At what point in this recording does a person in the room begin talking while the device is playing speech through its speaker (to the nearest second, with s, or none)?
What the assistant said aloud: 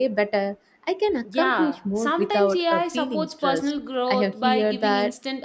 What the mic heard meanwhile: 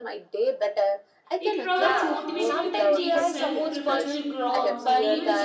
1 s